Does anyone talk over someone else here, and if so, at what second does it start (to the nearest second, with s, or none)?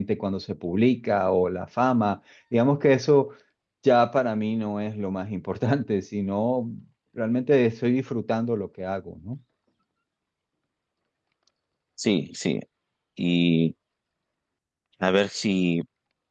none